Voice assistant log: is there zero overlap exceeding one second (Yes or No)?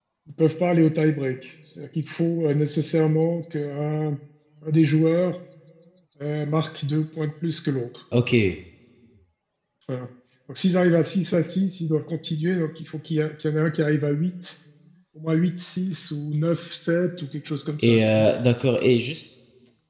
Yes